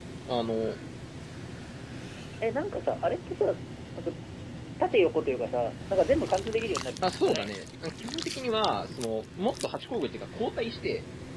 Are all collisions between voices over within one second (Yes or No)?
Yes